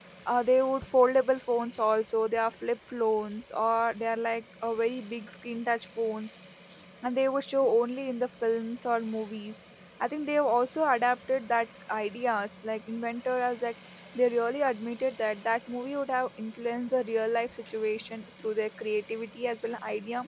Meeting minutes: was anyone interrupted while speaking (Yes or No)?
No